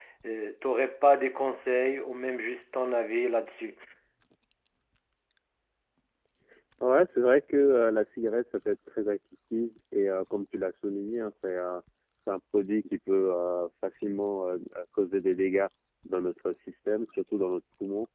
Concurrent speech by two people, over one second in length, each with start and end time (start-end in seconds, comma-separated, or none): none